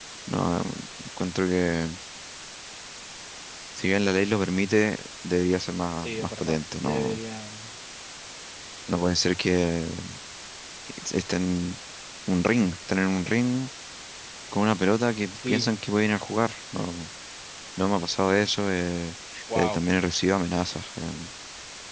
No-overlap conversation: No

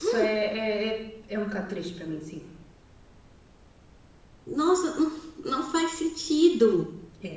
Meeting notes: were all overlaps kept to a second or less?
Yes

